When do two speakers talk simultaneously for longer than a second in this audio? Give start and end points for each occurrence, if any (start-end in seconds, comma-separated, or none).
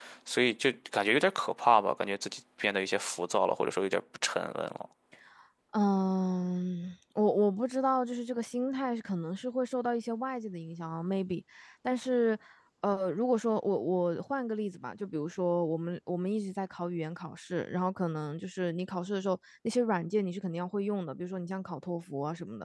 none